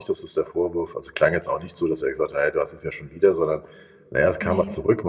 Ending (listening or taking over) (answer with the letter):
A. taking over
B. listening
B